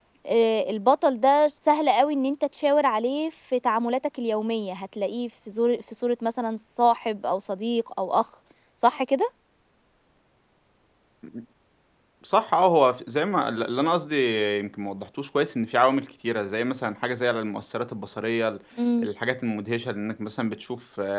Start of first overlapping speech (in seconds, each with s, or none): none